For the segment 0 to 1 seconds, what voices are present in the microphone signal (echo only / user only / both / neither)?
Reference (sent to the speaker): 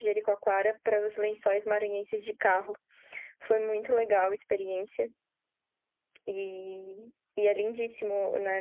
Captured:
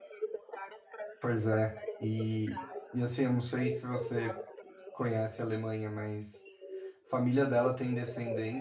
echo only